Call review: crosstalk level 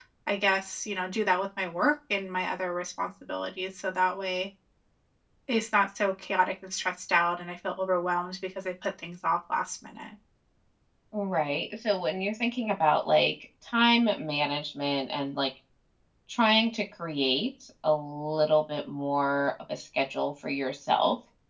none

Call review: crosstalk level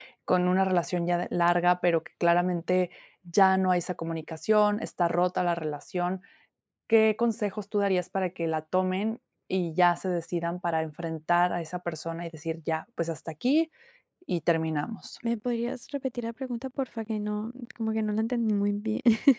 none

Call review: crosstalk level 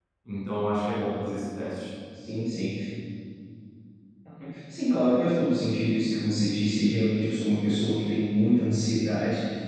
none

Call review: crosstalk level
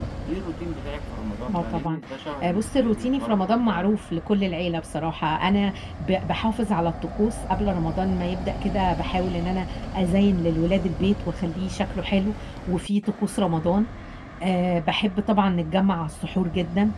present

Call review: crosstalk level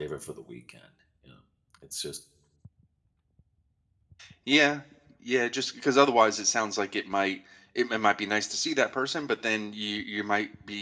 none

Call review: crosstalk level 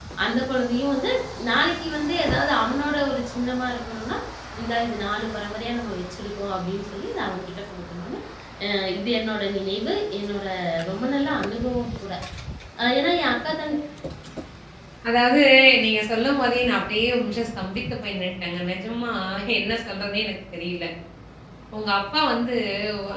none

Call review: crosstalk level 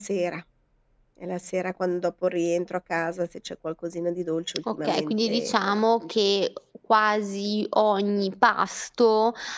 present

